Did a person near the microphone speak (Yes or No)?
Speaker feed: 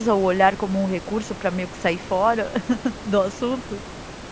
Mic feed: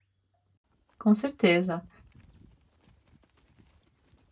Yes